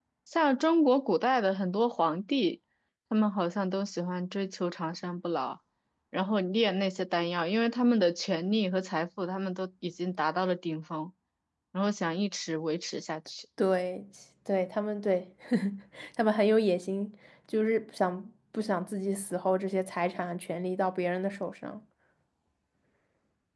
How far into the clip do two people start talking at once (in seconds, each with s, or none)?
none